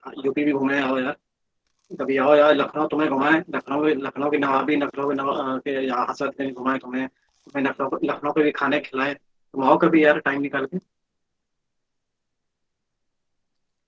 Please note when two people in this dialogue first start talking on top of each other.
none

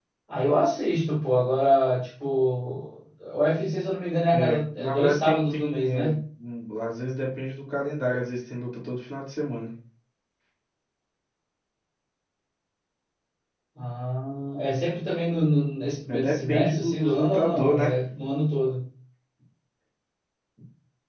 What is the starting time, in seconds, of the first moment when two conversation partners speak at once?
4.3 s

